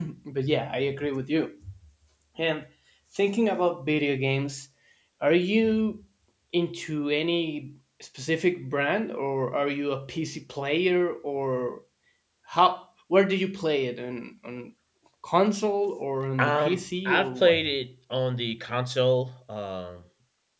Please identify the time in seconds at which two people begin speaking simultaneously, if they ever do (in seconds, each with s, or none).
16.4 s